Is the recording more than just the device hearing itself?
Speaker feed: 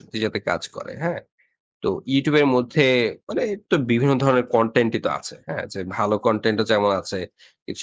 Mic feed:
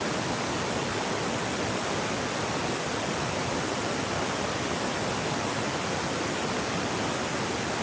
No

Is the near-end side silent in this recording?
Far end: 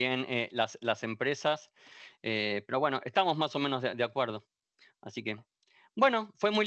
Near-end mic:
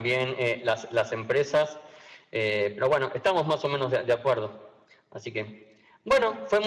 Yes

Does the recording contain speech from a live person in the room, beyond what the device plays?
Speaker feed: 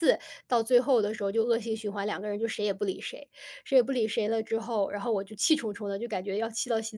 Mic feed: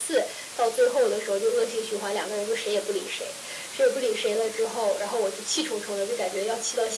No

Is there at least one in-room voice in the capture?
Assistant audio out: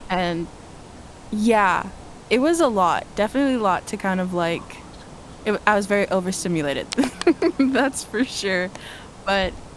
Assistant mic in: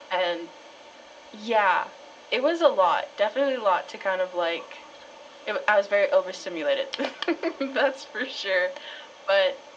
No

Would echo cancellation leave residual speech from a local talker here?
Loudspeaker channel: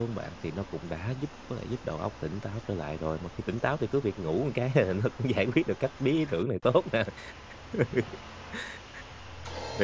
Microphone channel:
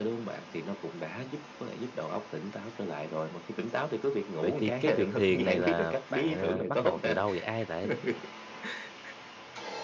Yes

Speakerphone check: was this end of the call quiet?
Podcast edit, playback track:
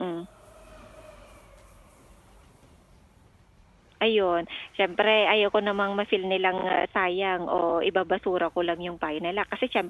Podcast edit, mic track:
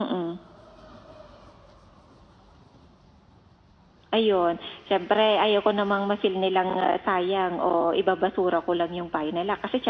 Yes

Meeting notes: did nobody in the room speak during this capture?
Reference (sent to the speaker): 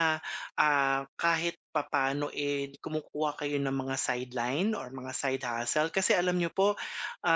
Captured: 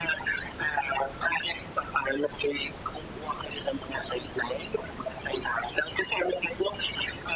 Yes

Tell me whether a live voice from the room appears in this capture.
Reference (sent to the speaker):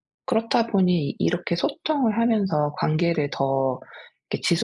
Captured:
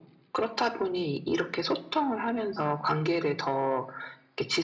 No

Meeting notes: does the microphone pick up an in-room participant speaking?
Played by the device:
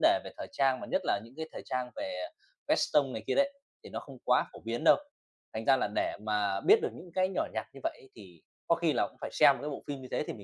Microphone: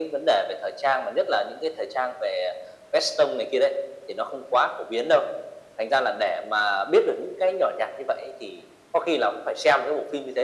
No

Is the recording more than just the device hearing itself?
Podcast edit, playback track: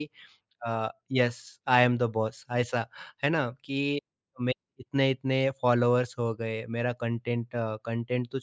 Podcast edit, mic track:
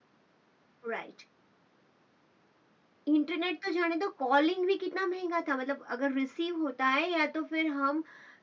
Yes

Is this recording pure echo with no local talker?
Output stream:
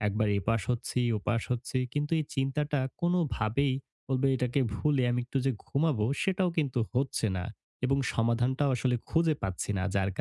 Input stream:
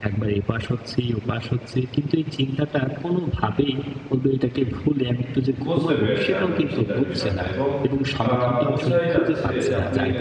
No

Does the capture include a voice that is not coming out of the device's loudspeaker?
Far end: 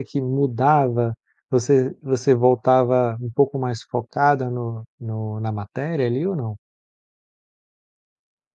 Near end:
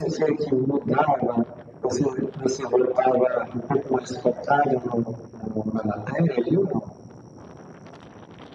No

